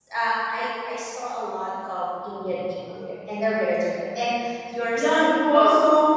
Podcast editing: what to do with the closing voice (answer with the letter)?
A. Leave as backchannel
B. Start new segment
B